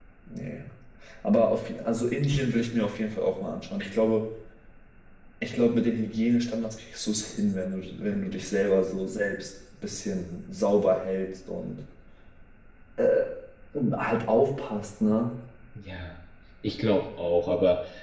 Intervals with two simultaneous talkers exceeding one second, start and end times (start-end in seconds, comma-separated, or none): none